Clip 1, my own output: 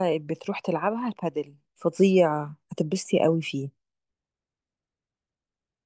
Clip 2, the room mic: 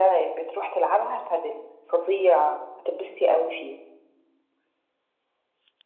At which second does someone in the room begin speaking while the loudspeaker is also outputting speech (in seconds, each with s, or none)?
none